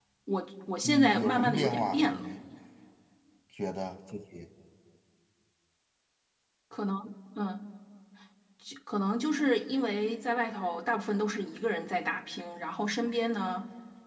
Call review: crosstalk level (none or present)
present